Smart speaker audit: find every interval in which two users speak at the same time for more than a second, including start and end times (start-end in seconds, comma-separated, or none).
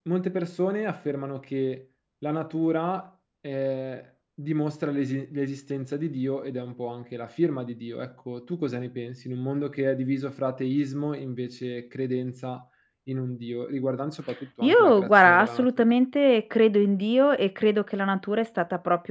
14.6-15.9